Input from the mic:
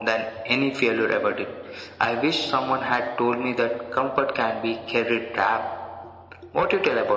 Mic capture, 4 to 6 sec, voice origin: echo only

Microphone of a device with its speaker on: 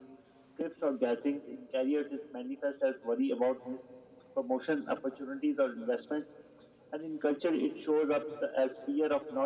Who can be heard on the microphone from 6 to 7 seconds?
echo only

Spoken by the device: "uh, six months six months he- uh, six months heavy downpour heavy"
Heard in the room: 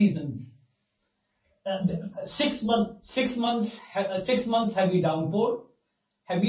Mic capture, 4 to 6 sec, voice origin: echo only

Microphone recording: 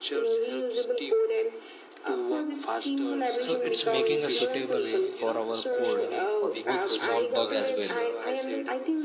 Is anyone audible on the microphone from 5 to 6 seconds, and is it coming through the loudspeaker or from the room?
both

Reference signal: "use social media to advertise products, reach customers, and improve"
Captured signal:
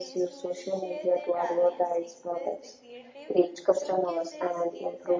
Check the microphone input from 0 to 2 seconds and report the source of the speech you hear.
both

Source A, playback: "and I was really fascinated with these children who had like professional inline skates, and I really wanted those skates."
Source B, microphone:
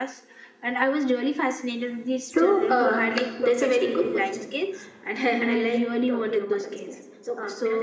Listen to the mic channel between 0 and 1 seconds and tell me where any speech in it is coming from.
echo only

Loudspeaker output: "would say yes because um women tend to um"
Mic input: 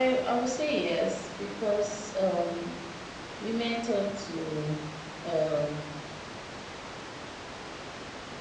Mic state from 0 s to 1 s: echo only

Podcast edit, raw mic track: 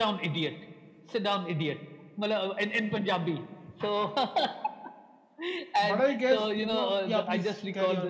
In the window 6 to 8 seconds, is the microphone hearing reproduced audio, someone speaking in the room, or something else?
both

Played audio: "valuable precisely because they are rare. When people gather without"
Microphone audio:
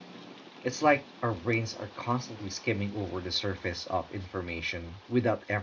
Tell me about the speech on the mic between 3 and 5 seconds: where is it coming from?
user only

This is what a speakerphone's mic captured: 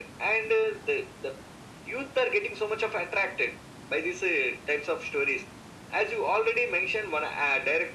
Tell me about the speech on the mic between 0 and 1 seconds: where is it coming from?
echo only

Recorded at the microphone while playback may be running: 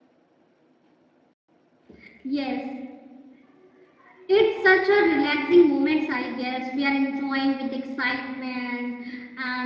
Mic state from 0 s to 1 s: neither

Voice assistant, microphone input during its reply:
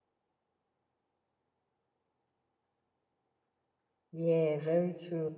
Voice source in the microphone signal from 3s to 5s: user only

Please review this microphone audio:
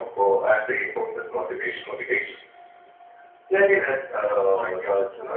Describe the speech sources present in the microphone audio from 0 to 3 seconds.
echo only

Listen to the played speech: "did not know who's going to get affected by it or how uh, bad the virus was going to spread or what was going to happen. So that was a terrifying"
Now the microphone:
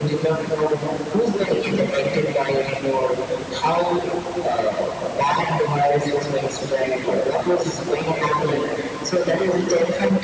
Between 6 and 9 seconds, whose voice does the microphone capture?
echo only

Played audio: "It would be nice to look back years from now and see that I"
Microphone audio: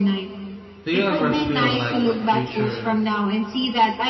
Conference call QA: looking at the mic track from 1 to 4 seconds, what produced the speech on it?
both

